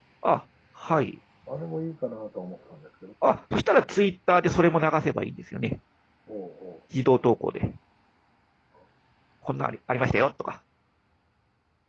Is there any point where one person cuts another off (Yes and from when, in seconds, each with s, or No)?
No